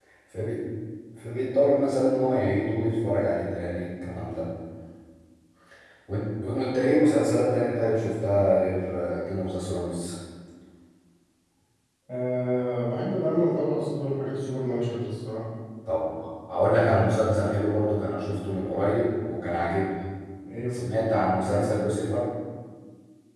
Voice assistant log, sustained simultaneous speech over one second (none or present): none